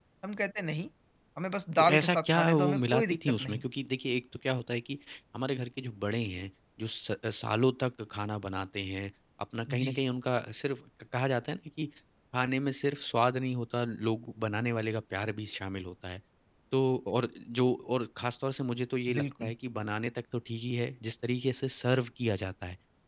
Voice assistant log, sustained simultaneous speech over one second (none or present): present